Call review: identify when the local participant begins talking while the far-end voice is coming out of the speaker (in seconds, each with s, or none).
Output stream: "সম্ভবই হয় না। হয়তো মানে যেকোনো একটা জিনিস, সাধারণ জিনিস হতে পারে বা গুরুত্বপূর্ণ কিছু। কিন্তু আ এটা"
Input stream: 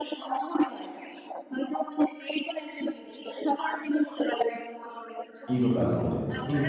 5.5 s